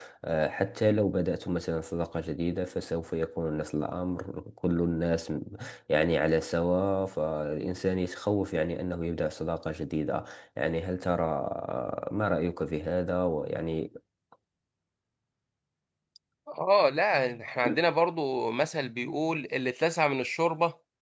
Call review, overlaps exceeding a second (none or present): none